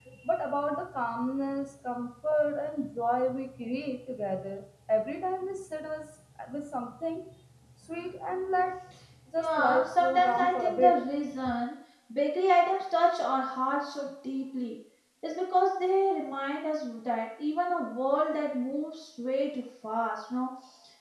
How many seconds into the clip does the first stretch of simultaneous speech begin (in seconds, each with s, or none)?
9.3 s